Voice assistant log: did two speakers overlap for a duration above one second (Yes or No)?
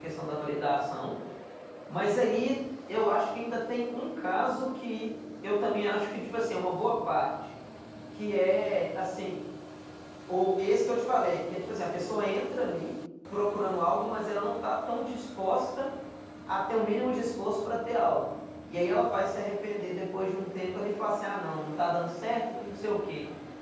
No